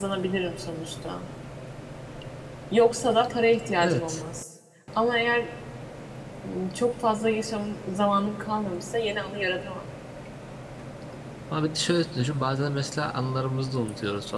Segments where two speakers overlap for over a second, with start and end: none

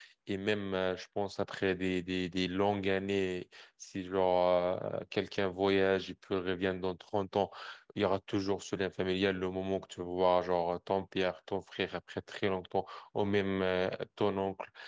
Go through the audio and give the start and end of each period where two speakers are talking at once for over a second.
none

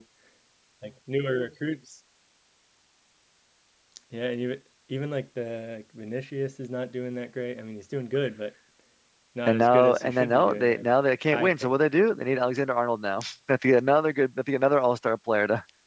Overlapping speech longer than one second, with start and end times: 9.5-10.8

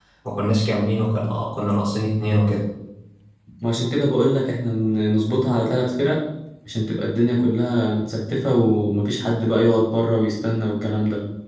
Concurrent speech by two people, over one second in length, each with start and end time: none

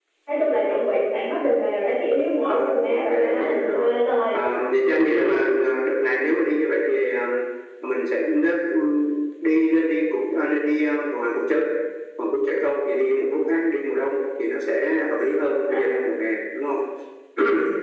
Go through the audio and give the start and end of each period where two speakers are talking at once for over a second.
2.4-3.9

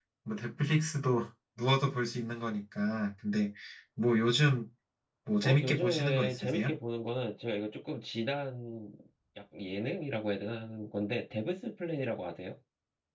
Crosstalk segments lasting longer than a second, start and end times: 5.4-6.7

